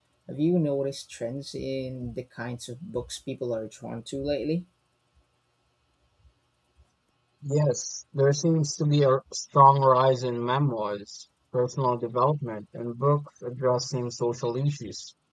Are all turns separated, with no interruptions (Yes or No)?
Yes